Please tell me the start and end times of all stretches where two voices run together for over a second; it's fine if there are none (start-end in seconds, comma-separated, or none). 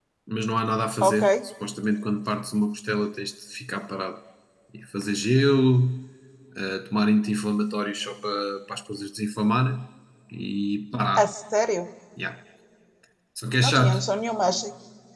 none